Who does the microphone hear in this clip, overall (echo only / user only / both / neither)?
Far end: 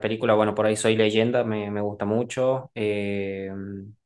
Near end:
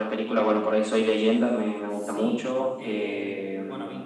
both